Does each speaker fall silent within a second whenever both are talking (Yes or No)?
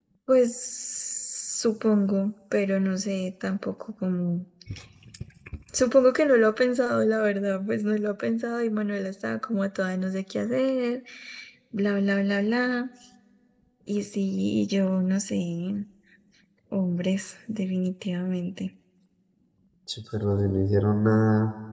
Yes